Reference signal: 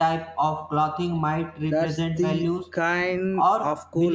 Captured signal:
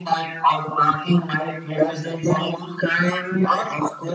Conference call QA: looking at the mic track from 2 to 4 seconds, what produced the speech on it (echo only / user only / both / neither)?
echo only